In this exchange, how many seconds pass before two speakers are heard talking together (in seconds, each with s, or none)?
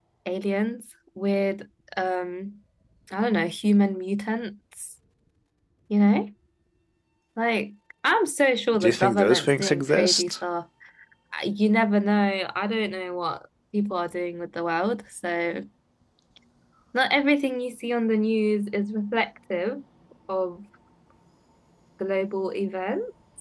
8.7 s